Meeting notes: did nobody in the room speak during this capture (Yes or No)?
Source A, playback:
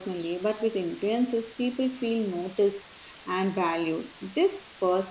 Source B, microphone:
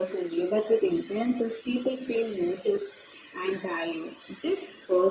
Yes